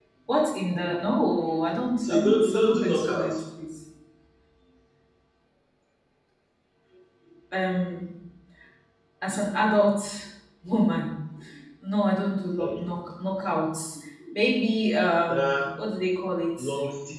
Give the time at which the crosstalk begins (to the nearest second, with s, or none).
2 s